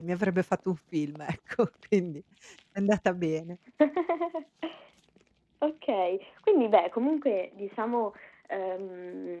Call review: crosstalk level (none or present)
none